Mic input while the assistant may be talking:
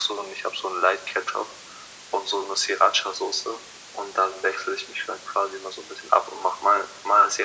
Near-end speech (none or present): none